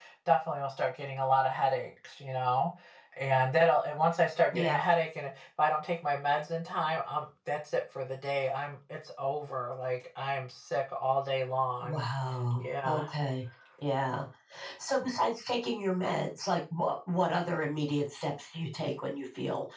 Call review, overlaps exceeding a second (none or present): none